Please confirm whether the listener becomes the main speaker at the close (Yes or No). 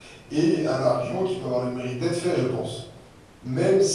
Yes